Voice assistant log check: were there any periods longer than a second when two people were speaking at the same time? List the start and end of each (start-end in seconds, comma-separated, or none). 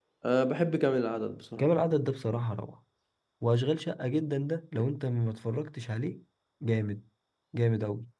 none